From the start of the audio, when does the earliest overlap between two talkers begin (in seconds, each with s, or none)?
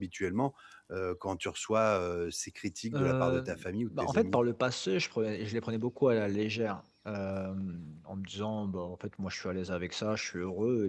2.9 s